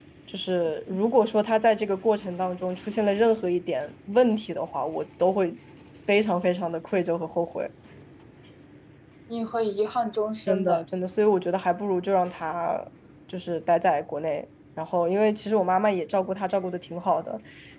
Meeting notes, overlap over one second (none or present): none